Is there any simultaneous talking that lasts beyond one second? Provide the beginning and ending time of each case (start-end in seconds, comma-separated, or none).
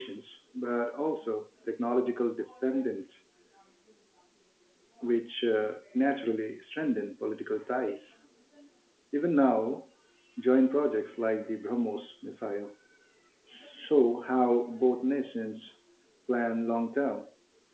none